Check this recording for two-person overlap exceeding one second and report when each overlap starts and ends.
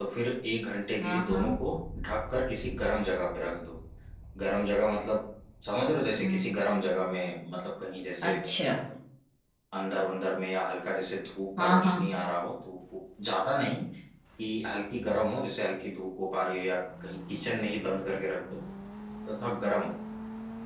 none

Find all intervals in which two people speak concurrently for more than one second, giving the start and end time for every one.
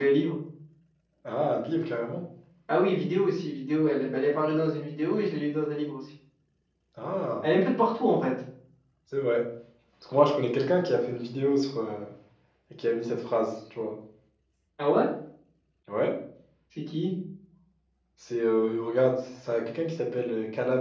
none

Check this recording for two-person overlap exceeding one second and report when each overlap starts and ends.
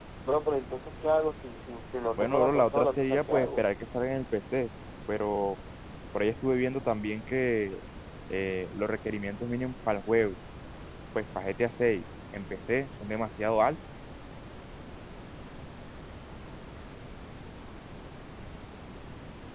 2.2-3.6

